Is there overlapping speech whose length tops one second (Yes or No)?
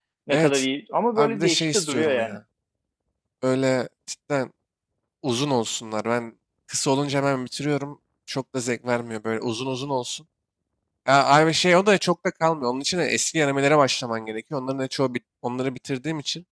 Yes